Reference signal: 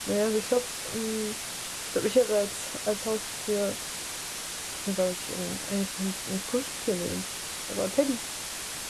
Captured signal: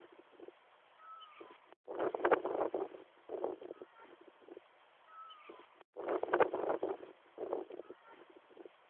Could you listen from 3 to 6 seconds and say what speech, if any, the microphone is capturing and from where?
neither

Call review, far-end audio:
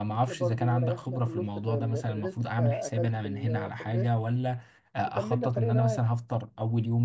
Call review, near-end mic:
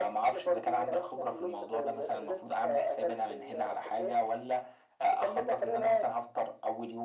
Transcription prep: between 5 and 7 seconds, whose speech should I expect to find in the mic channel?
echo only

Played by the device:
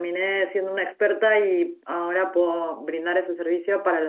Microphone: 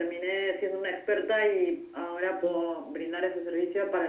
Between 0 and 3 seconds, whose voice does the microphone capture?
echo only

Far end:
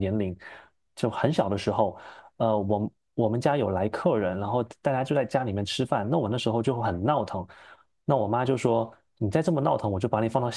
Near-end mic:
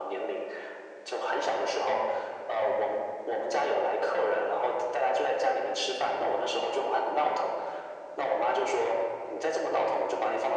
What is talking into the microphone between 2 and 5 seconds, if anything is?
echo only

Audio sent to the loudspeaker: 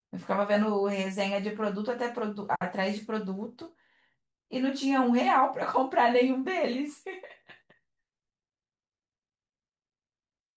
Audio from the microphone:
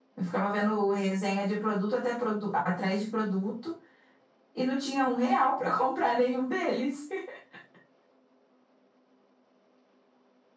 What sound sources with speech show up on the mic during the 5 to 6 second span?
echo only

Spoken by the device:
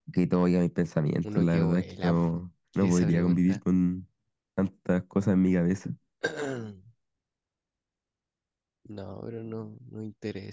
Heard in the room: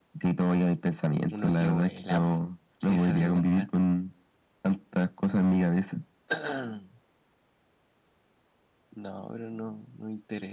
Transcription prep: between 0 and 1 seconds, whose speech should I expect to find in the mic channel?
echo only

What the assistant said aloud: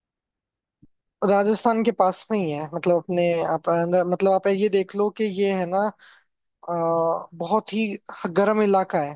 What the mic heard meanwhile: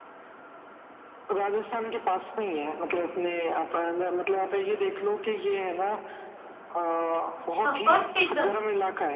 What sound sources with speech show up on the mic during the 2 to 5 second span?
echo only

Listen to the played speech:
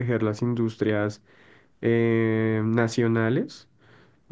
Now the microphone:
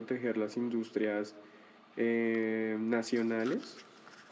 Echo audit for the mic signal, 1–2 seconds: echo only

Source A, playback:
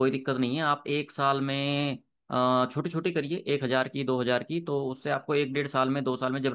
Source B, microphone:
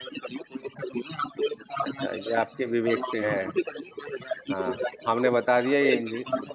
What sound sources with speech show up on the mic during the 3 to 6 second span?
both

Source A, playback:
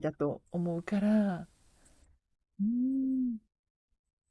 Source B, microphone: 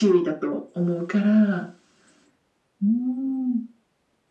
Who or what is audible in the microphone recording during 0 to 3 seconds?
echo only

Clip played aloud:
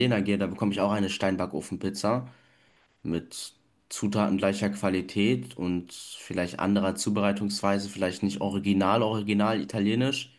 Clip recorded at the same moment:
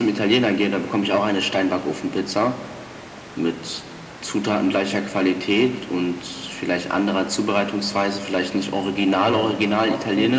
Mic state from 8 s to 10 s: both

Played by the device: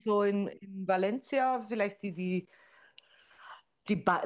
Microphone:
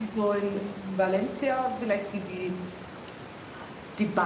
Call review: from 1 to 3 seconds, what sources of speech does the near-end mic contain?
echo only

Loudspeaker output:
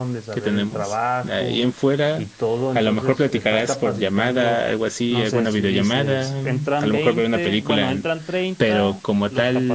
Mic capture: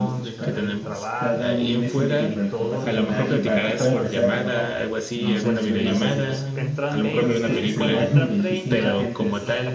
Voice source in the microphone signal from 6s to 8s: both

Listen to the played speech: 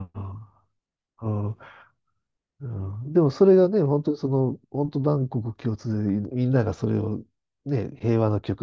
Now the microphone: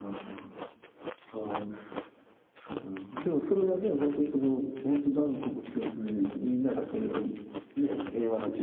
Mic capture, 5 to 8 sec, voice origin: echo only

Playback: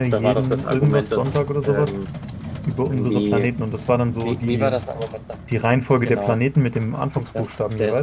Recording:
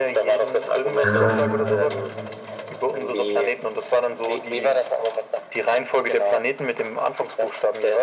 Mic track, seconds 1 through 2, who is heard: both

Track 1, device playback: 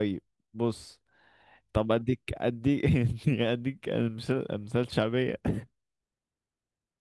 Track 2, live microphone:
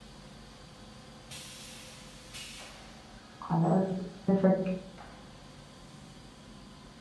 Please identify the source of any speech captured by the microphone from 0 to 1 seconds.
neither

